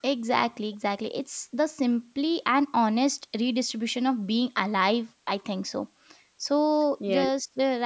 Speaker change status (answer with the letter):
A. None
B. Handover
A